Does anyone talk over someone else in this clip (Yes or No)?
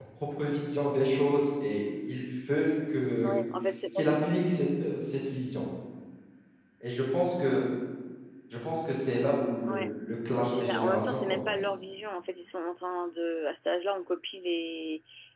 Yes